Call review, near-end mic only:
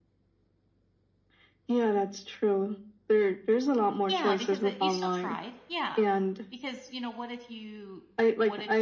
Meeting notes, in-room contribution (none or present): present